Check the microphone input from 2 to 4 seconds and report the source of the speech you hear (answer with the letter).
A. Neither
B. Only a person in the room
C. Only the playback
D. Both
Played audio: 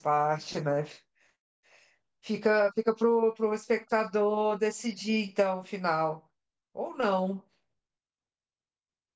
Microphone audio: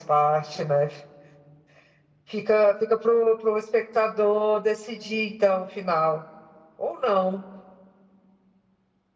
C